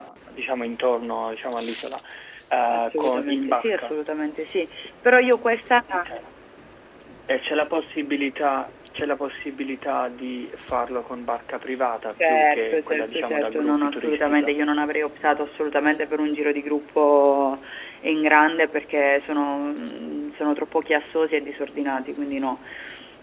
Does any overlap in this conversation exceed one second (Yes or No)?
Yes